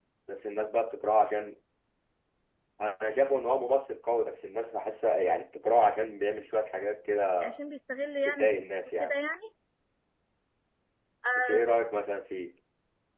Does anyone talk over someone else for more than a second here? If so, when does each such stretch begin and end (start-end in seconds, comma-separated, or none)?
none